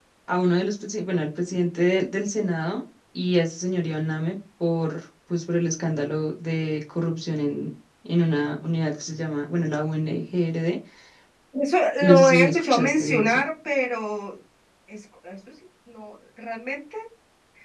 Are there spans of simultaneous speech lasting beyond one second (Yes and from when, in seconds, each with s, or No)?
Yes, from 12.0 s